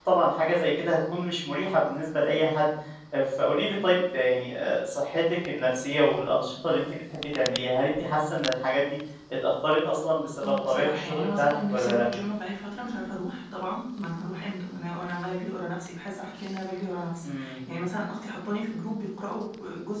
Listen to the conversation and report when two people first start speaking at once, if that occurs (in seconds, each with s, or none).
10.4 s